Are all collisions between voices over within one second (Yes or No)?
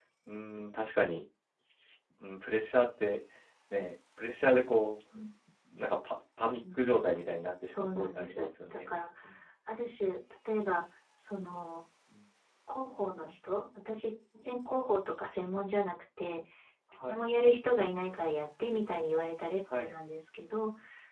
No